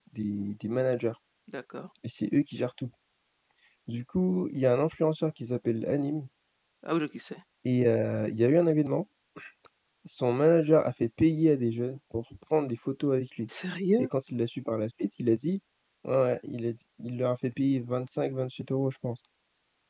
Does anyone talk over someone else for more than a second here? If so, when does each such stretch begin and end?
none

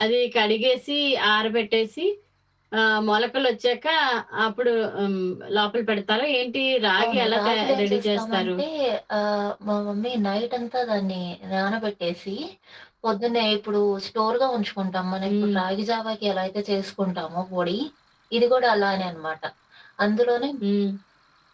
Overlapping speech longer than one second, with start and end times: 7.0-8.5

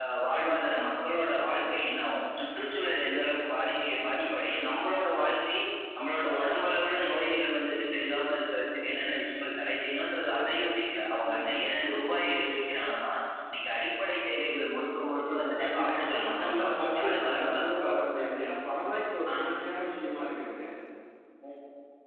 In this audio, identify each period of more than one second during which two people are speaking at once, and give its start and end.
15.1-18.2

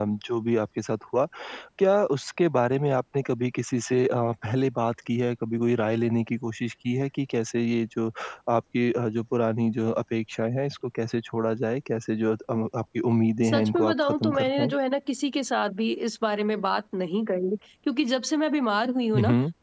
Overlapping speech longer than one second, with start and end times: 13.4-14.7

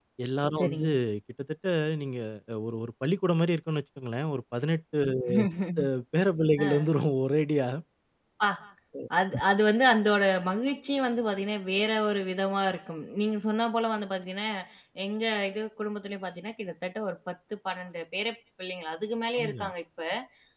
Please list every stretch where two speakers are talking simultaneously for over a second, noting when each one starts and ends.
none

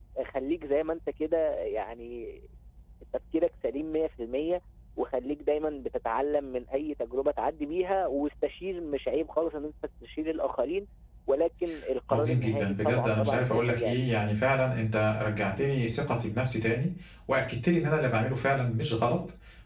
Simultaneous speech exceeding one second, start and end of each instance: 12.1-14.1

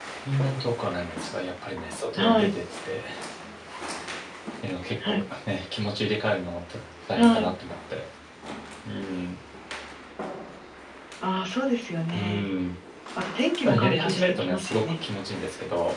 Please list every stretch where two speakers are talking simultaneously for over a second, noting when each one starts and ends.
13.6-14.9

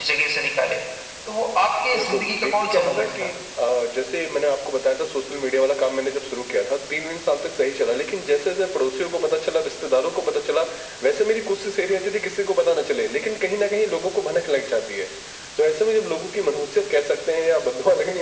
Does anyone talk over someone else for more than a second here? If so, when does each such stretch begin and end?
1.9-3.3

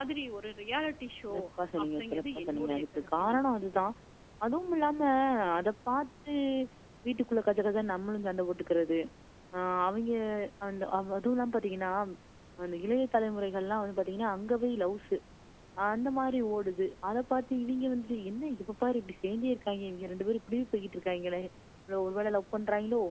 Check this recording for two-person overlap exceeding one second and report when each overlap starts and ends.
1.8-3.4

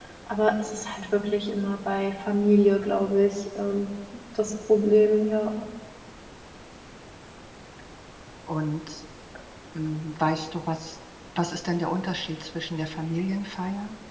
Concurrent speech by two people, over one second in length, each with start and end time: none

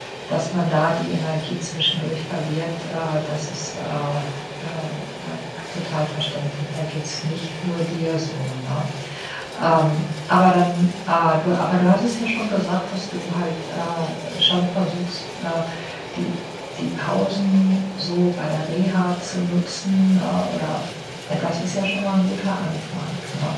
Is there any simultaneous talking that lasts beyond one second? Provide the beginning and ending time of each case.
none

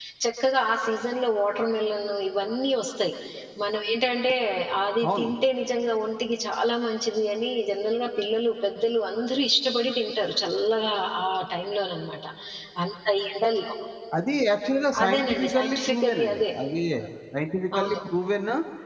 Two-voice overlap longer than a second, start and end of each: 15.0-16.4

